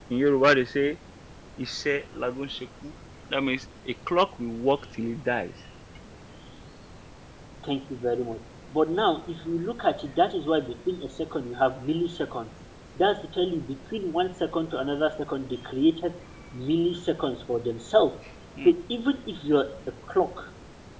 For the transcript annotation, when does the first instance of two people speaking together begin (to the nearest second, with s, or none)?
none